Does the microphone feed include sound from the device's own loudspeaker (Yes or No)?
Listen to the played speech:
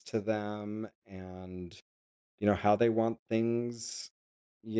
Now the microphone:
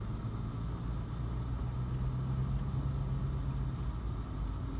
No